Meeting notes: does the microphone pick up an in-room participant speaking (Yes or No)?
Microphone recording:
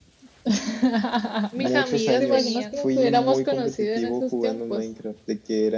Yes